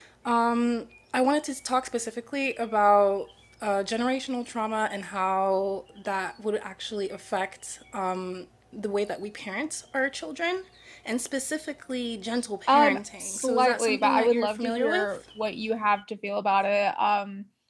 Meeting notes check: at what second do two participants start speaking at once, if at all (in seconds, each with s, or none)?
12.7 s